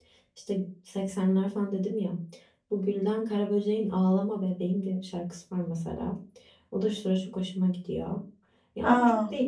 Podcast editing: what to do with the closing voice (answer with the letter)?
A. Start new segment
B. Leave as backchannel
B